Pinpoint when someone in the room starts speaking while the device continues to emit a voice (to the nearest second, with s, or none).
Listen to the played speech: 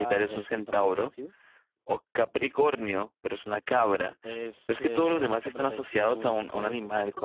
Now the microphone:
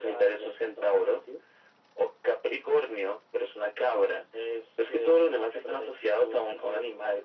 none